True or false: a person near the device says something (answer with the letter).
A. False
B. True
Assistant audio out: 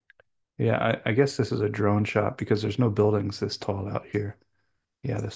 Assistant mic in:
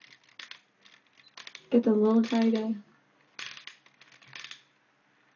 B